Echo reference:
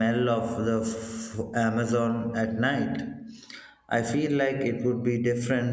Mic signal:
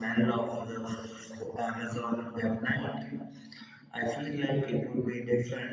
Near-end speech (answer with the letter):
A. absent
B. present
A